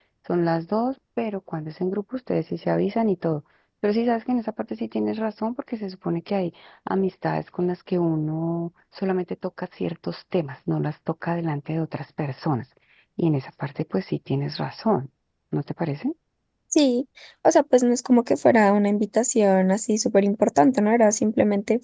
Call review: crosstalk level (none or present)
none